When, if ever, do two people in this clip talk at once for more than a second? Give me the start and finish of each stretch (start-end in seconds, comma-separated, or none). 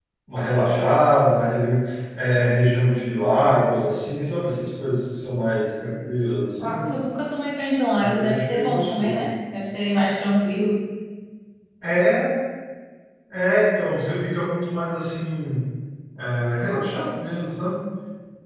8.0-9.2